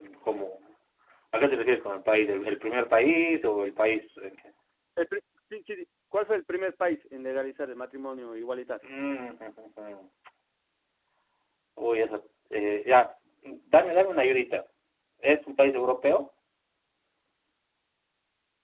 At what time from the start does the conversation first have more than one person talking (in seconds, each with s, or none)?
none